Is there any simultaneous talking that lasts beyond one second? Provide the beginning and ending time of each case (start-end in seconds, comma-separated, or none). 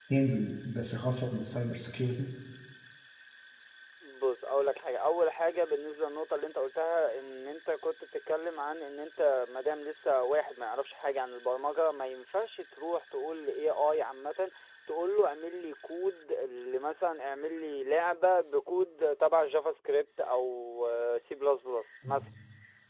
none